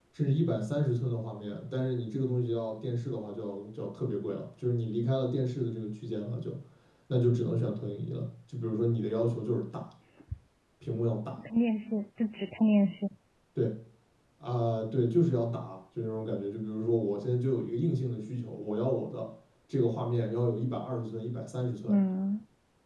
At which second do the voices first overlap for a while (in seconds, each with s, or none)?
none